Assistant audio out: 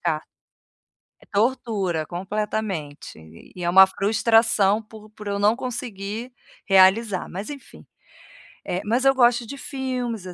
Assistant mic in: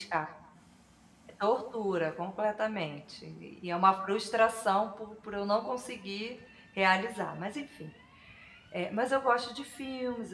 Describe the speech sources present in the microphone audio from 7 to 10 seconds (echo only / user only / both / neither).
echo only